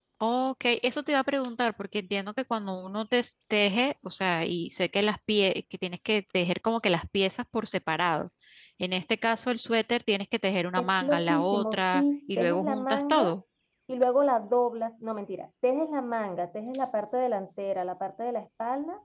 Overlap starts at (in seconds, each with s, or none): 10.8 s